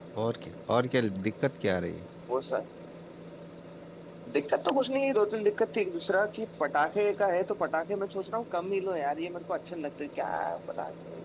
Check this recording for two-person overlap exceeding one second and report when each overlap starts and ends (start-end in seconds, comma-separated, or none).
none